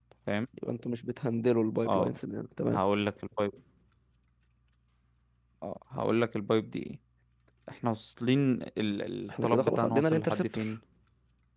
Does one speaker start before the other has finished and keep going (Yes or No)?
Yes